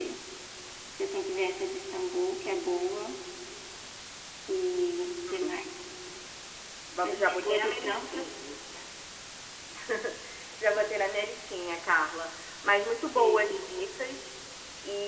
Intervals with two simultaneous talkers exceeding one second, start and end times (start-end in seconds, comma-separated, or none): 7.0-8.4